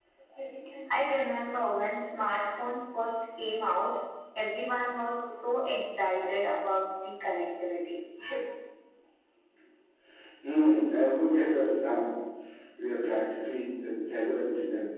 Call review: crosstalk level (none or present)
none